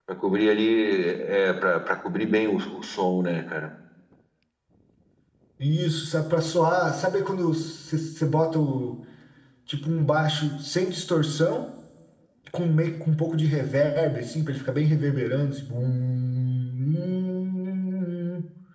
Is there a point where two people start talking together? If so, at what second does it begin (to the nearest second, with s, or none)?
none